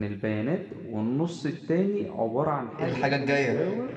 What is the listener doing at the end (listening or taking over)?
listening